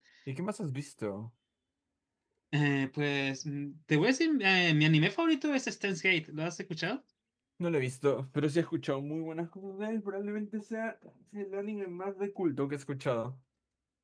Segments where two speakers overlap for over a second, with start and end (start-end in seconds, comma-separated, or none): none